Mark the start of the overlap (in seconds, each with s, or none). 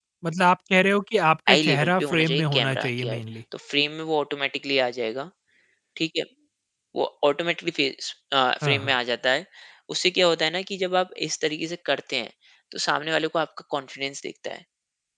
1.5 s